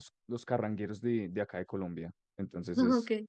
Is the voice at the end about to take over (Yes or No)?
No